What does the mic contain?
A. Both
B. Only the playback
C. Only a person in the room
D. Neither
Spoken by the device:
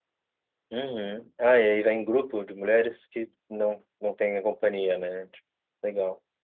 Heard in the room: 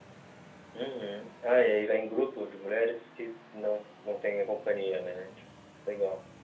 B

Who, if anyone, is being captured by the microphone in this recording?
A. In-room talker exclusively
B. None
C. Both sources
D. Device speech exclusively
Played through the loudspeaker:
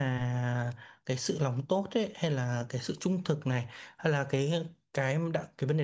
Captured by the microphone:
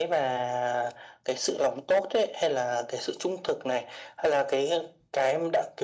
D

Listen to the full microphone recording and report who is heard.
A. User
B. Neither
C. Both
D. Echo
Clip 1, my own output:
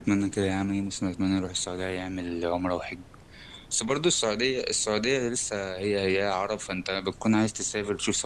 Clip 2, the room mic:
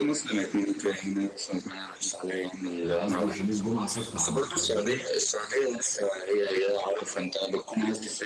C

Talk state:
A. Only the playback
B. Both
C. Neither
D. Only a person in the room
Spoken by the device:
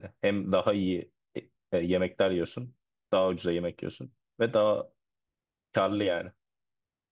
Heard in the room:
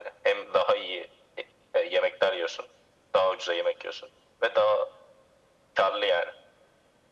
A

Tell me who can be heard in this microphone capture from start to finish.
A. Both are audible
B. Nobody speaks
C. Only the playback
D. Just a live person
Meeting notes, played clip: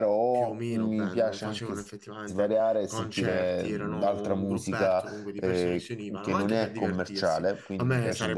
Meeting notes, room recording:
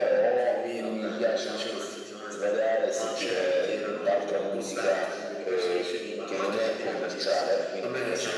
C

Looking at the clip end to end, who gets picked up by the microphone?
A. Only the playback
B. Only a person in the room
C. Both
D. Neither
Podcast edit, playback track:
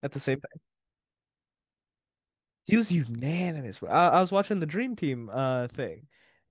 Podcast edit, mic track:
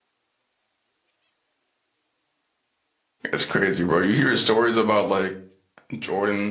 B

